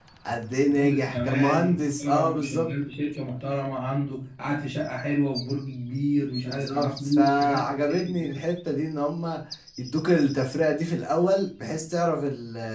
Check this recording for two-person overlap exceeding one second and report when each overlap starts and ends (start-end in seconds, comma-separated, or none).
0.6-2.7, 6.6-8.5